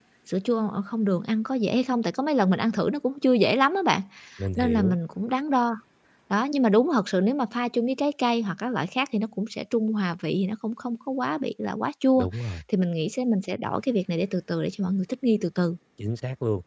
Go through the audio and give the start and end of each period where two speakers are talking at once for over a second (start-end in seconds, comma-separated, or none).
none